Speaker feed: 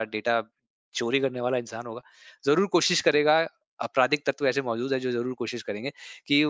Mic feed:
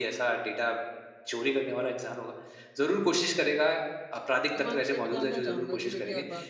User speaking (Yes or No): Yes